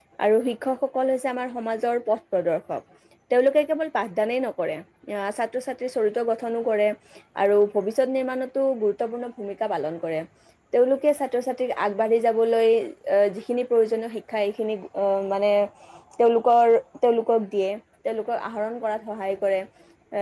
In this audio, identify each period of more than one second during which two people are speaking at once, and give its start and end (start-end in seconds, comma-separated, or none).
none